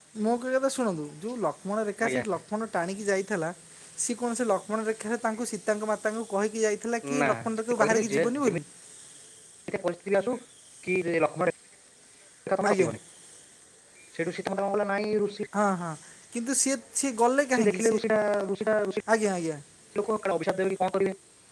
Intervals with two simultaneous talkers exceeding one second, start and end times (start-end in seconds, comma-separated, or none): 7.2-8.6